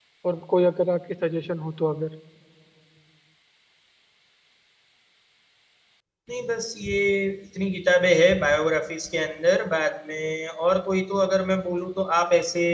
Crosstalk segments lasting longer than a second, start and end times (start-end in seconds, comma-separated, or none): none